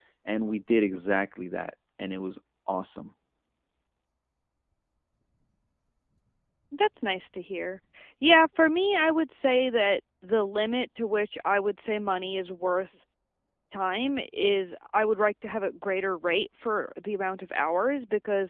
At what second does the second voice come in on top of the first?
none

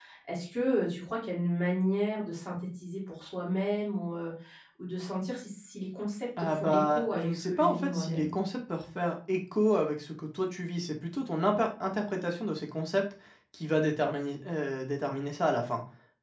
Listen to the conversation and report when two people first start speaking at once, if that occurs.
6 s

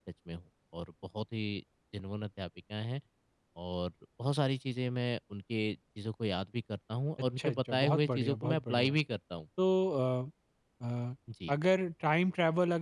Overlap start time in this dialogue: 7 s

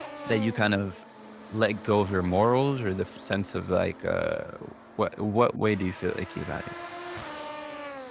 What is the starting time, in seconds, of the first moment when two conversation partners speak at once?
none

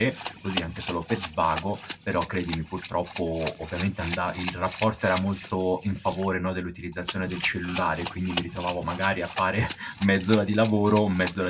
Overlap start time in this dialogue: none

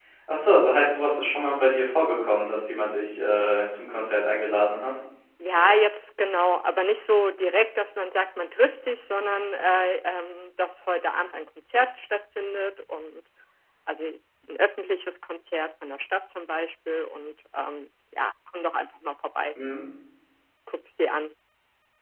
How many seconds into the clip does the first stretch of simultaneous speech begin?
none

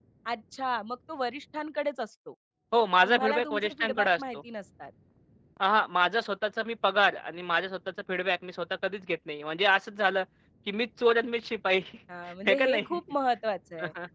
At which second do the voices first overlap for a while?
3 s

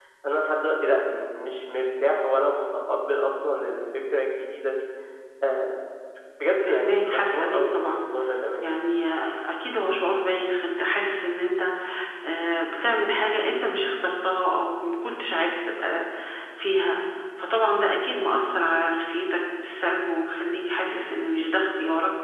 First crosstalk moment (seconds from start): 7 s

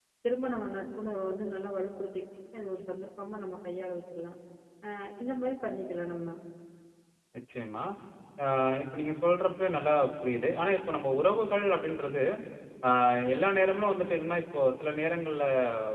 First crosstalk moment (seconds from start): none

